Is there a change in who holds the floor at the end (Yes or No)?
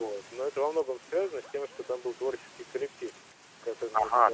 Yes